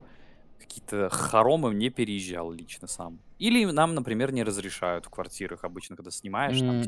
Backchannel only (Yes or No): No